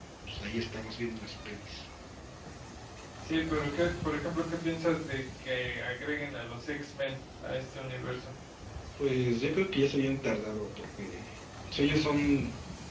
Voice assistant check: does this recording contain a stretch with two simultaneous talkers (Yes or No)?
No